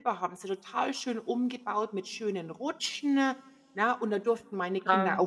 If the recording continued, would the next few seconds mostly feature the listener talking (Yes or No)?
No